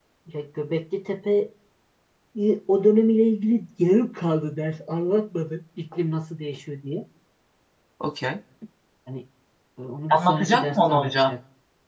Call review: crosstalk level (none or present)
present